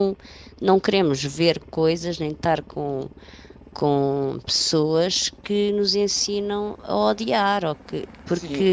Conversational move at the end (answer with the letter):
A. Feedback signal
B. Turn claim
B